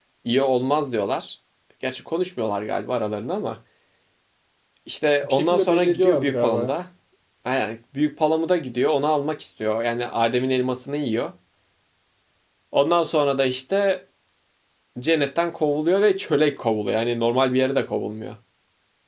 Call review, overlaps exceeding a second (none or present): present